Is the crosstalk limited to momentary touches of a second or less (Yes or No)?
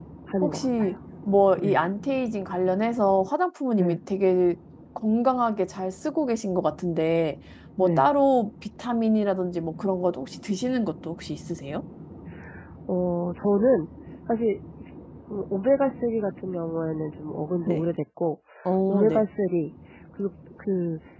Yes